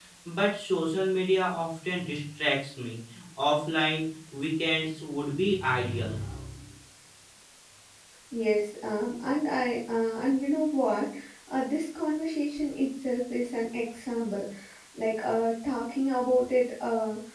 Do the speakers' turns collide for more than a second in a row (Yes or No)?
No